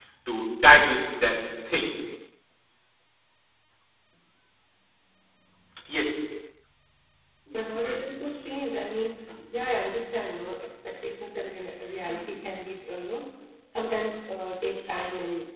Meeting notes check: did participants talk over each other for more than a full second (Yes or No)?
No